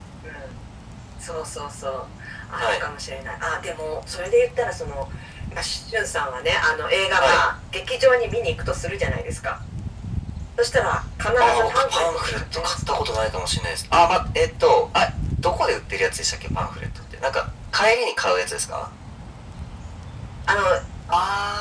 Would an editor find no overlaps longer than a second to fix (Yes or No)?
No